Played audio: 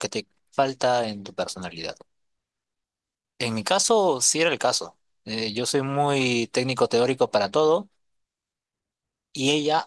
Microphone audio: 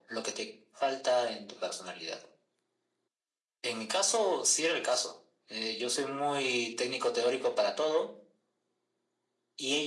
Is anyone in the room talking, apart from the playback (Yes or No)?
No